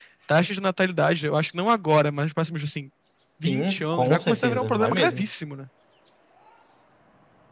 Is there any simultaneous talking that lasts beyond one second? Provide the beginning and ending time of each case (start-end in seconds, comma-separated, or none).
3.5-5.3